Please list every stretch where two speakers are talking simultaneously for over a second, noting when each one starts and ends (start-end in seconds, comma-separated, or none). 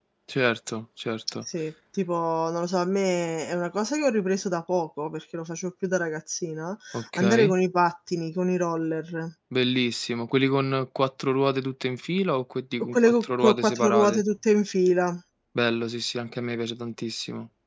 12.9-14.2